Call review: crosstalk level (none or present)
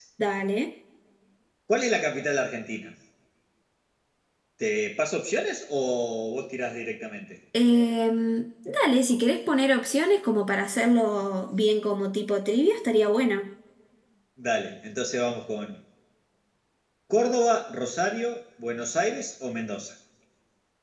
none